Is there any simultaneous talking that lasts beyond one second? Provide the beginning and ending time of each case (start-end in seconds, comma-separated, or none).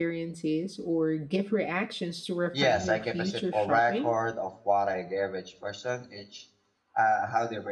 2.6-4.1